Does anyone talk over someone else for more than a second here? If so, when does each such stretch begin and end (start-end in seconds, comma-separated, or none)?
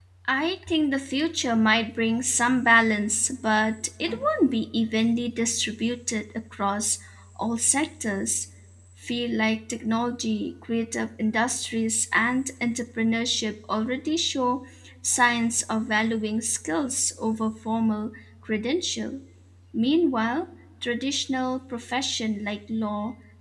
none